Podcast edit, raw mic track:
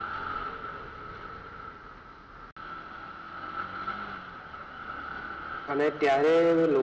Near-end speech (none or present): present